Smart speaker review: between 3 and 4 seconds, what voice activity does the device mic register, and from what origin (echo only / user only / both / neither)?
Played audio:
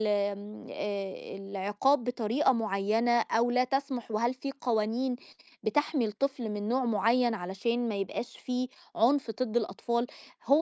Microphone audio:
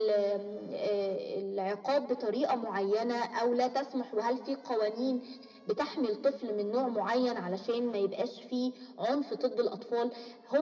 echo only